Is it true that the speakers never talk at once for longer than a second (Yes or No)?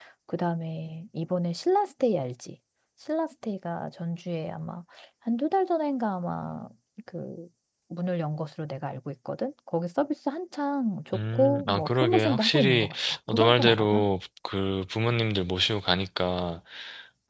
No